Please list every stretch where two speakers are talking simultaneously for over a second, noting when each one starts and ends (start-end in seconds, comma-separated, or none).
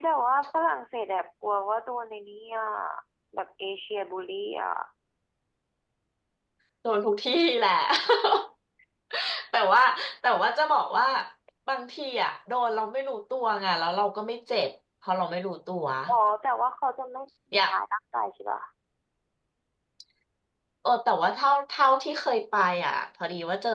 none